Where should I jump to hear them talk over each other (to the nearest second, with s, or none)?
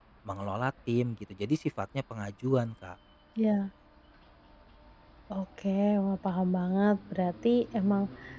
none